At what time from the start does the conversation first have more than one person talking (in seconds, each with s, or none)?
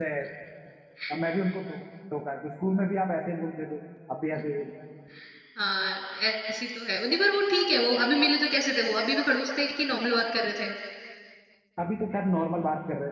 none